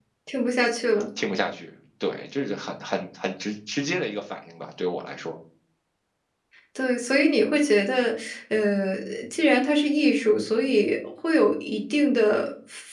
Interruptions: none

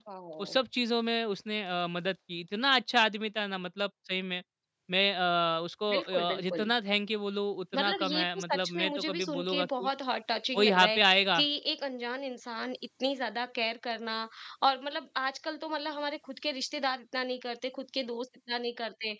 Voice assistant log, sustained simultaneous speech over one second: present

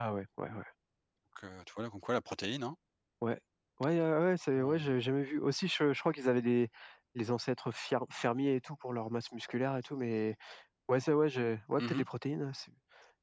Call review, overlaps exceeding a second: none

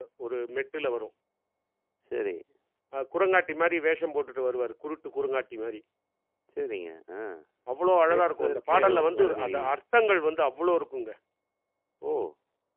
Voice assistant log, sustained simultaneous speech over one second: present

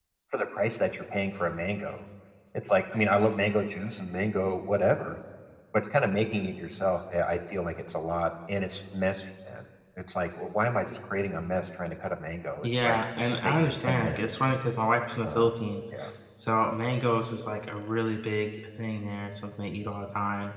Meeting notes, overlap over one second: present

